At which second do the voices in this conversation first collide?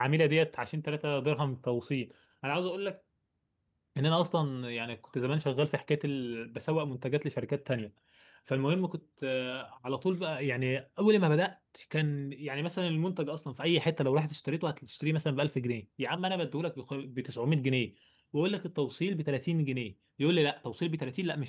none

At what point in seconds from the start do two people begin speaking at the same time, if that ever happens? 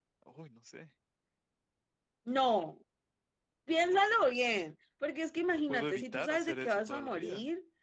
5.7 s

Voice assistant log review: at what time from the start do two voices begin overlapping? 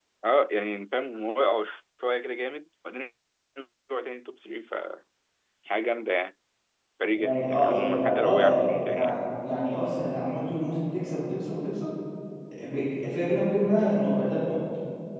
7.0 s

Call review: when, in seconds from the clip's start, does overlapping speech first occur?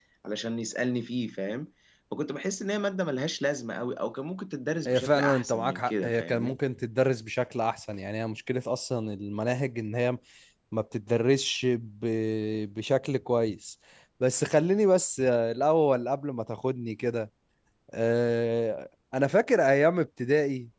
4.8 s

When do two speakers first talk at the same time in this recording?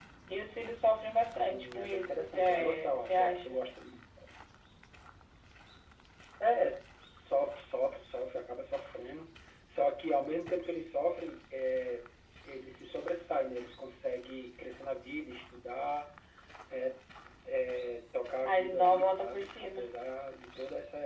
1.5 s

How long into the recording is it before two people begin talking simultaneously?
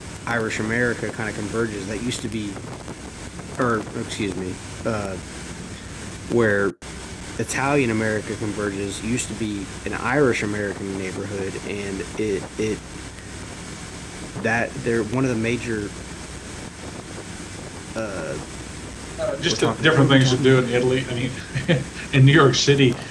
19.4 s

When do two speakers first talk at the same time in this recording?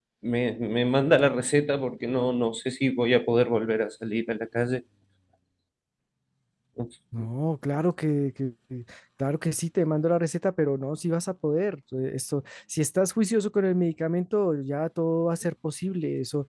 none

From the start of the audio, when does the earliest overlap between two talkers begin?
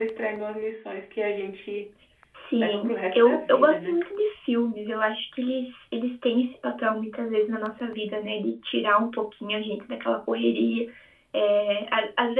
2.6 s

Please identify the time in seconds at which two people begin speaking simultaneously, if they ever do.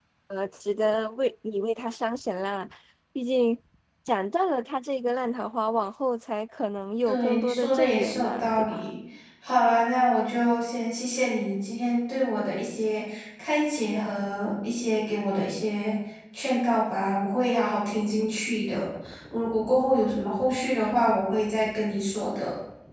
7.0 s

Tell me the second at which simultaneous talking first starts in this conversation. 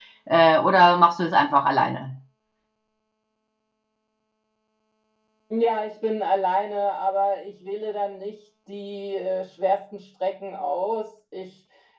none

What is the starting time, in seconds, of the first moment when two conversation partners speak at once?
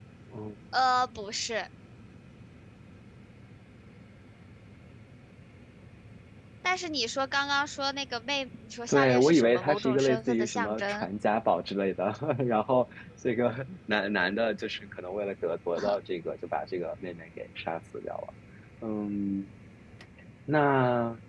8.9 s

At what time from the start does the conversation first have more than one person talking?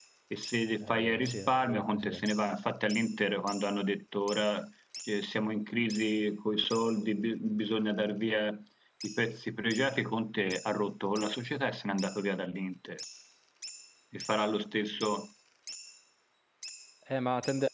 0.8 s

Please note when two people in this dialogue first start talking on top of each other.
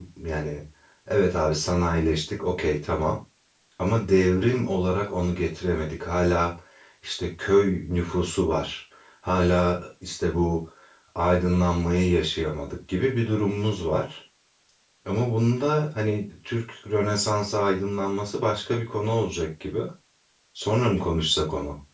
none

